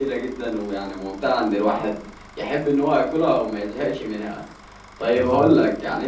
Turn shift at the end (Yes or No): No